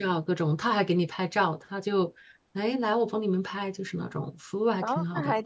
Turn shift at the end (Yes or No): Yes